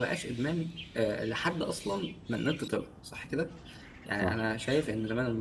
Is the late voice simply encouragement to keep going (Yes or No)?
Yes